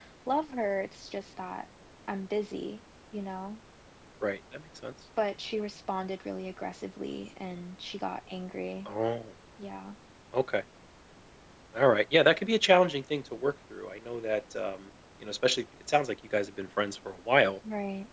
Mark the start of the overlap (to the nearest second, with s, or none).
none